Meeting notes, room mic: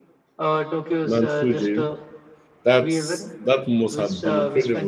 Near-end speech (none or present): present